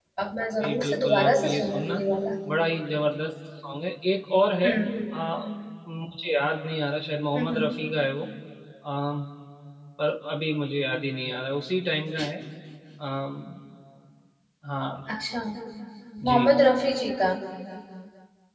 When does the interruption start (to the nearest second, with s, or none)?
1 s